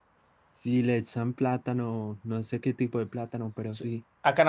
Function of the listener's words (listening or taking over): taking over